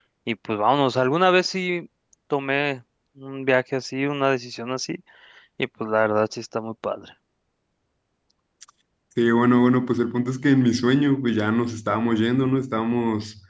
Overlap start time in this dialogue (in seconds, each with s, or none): none